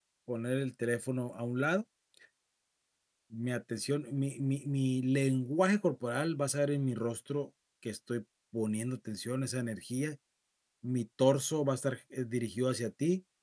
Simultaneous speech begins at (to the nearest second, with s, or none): none